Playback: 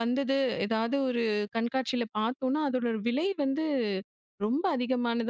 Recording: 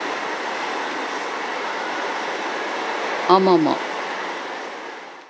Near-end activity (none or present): present